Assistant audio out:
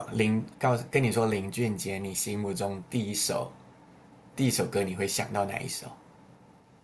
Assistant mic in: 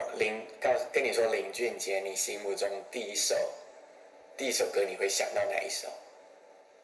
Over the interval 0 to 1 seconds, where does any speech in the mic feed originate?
echo only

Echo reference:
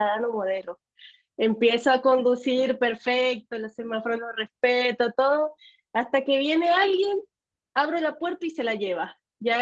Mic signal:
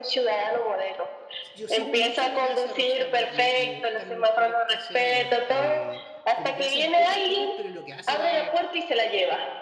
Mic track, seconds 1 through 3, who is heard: both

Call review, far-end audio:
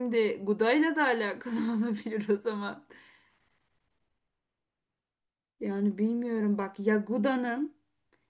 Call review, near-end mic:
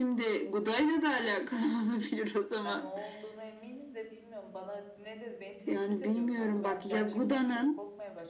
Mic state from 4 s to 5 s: user only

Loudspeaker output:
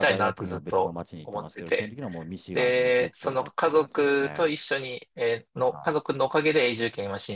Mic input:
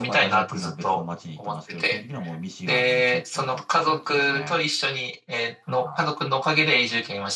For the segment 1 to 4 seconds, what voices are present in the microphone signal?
echo only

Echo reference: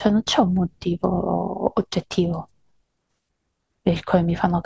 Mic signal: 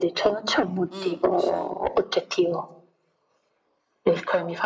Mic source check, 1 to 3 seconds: both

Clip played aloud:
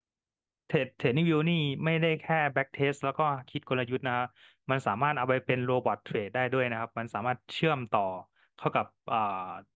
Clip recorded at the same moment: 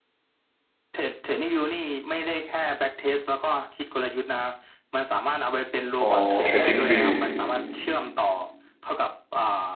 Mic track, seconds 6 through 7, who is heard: both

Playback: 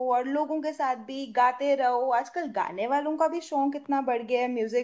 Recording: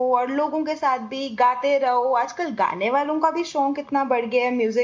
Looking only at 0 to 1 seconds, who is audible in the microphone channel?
echo only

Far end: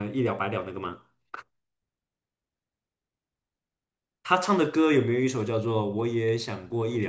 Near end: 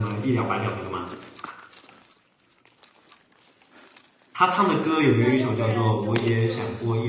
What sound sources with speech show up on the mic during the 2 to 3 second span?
neither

